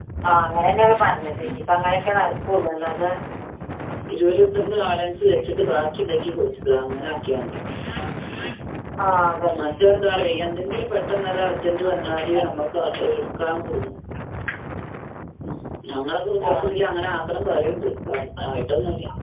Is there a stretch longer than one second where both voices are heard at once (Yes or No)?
No